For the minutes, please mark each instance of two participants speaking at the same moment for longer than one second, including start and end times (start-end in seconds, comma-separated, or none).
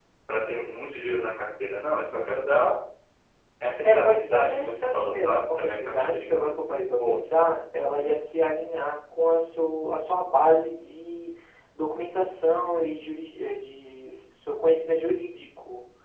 3.8-6.5